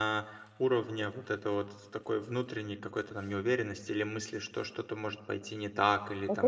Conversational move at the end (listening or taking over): taking over